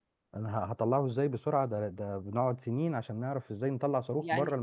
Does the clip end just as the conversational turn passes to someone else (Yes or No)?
Yes